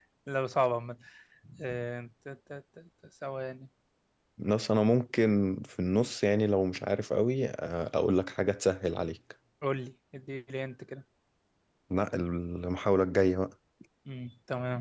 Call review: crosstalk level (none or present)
none